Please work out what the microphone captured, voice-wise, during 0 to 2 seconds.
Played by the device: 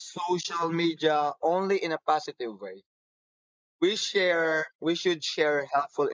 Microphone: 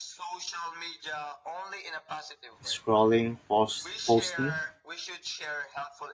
echo only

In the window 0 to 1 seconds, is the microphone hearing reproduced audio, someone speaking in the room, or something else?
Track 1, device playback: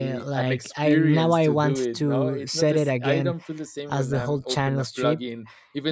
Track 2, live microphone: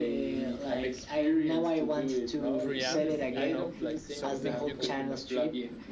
echo only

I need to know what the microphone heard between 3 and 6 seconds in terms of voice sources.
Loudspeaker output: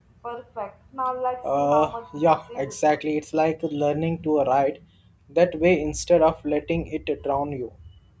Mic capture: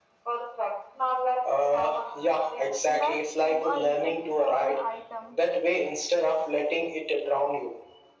both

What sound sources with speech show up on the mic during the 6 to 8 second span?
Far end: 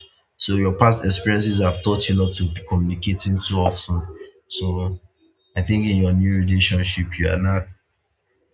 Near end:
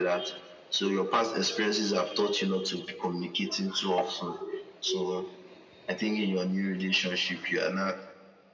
echo only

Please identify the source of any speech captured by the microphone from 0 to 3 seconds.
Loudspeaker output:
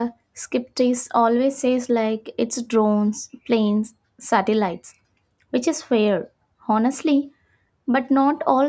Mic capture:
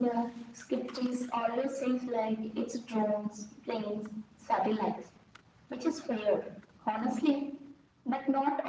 echo only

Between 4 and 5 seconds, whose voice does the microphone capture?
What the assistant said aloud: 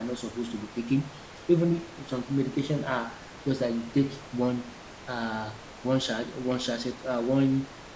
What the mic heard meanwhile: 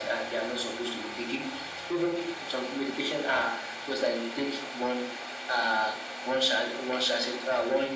echo only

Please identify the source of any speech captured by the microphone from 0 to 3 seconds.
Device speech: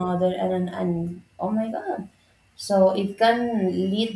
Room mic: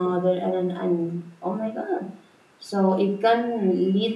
echo only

